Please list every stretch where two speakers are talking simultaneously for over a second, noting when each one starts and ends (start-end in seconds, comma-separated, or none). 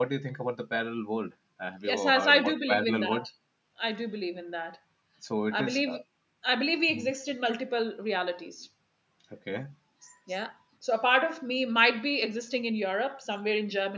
1.9-3.2